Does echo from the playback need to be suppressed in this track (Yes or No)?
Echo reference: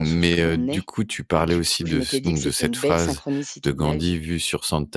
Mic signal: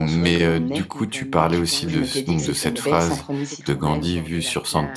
Yes